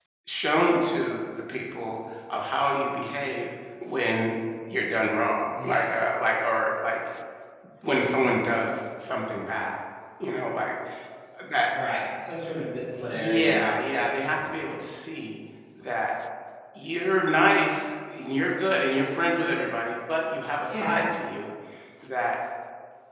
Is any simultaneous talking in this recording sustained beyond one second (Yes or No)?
No